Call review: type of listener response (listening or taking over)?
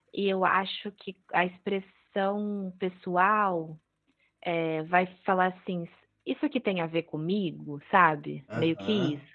taking over